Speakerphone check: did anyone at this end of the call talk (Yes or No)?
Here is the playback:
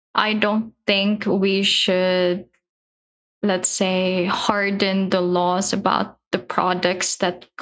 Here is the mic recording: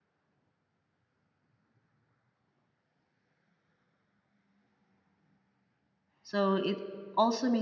Yes